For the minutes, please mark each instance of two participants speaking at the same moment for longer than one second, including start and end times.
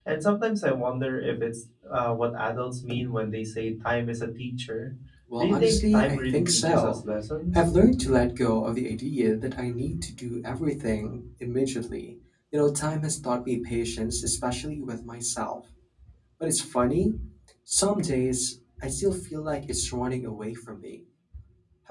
5.4-7.0

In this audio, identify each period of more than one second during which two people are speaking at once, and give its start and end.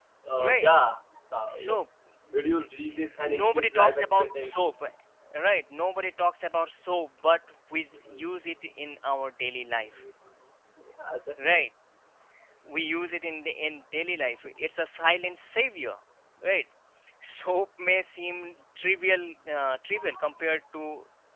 3.4-4.7

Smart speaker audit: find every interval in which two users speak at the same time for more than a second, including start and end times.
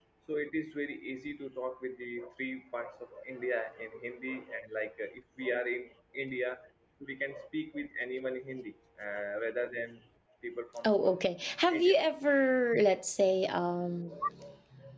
none

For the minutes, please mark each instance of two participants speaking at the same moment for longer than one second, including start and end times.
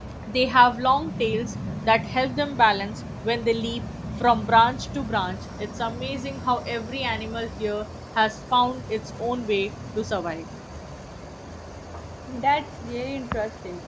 none

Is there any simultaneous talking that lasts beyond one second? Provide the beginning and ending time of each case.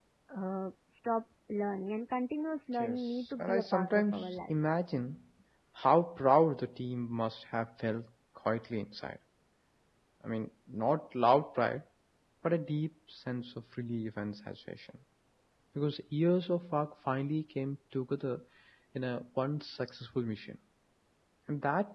2.8-4.6

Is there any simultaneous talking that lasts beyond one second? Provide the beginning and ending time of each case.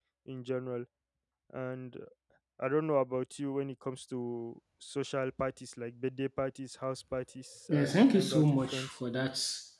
7.7-9.0

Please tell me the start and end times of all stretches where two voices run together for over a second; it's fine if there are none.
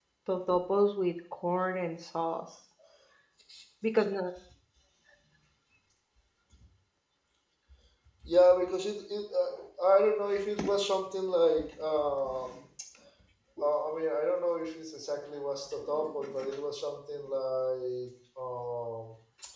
none

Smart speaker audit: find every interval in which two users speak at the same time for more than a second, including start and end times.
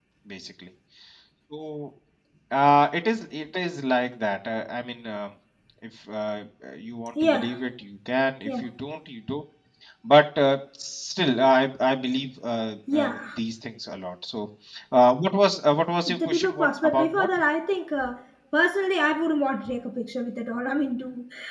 16.1-17.3

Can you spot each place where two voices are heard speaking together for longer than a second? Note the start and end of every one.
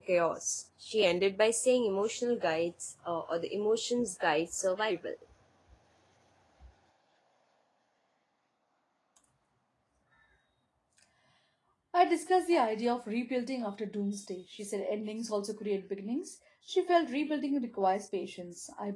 none

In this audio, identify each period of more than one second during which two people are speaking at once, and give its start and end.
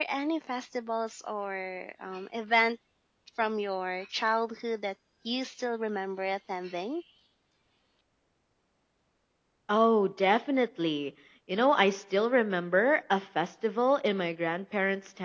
none

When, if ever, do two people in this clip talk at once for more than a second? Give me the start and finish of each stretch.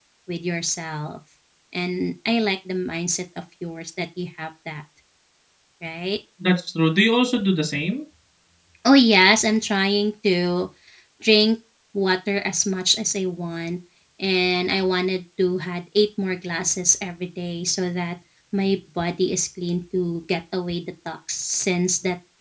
none

